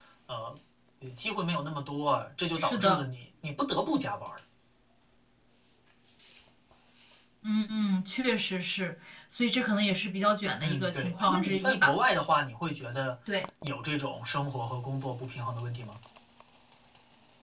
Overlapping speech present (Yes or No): Yes